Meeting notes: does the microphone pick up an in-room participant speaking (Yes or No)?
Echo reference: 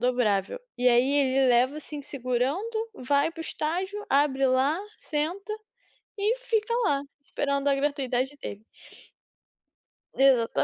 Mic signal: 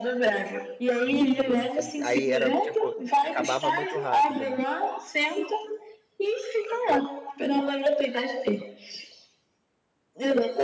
Yes